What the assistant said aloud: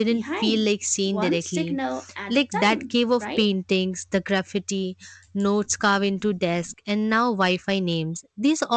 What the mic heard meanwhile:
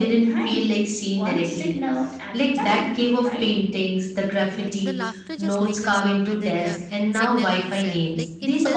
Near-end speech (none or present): present